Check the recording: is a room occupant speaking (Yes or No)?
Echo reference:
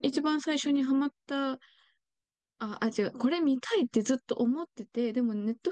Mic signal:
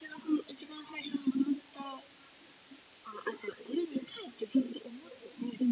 No